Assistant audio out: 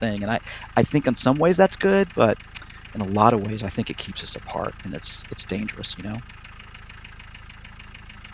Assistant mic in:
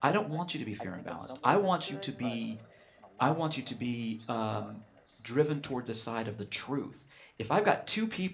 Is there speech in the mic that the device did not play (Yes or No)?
Yes